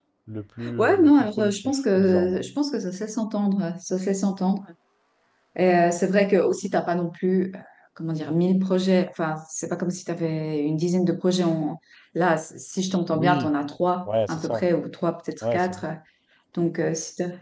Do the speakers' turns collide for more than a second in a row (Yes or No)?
Yes